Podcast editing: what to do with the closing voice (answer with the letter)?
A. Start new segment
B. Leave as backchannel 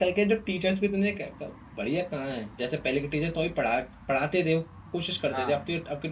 B